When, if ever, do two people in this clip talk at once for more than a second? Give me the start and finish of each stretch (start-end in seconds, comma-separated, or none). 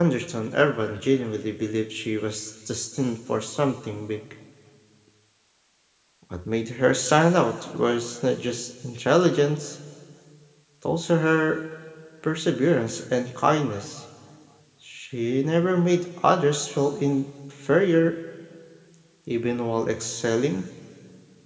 none